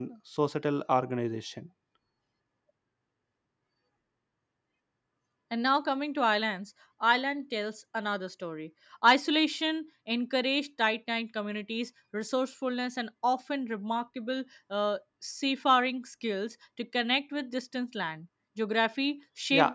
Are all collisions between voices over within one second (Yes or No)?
Yes